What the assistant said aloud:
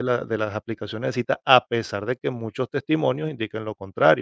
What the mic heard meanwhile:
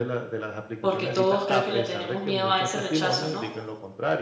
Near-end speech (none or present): present